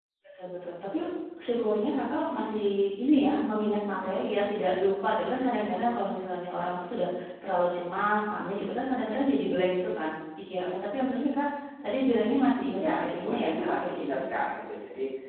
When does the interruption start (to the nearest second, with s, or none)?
13 s